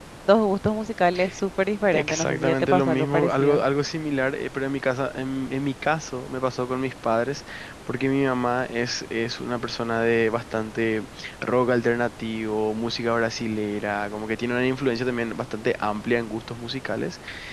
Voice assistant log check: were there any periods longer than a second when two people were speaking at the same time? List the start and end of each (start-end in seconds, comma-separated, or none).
1.9-3.6